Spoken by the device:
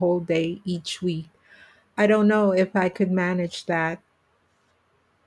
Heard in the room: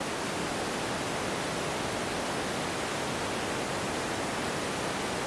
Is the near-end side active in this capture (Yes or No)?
No